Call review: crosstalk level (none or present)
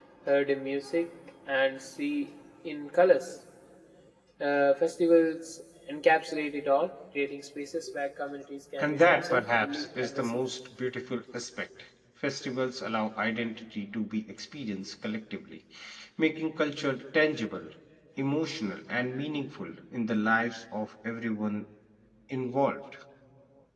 present